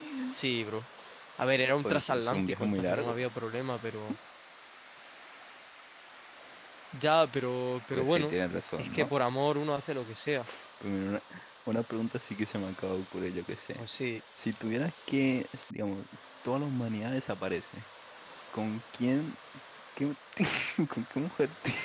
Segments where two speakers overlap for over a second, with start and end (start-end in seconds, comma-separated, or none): 1.8-3.2